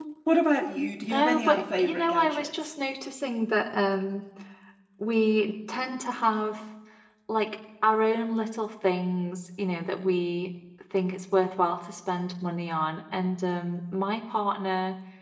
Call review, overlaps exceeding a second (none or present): present